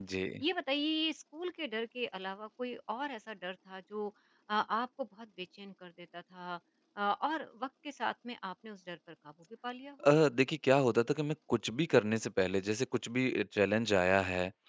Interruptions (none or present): none